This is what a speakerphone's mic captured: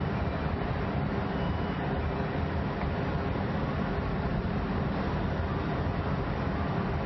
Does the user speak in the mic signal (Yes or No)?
No